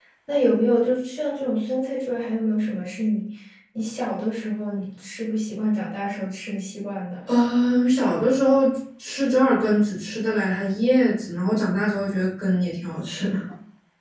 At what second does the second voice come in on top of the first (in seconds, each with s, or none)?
none